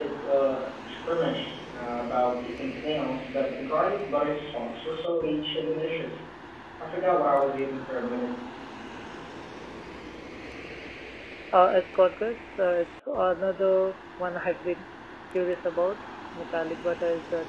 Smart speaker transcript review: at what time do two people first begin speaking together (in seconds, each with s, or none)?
none